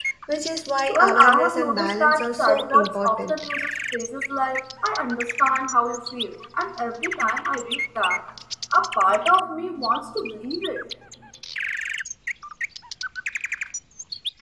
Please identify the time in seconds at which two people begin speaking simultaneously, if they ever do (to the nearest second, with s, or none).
1 s